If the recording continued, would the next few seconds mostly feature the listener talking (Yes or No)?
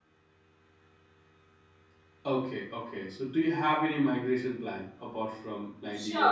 Yes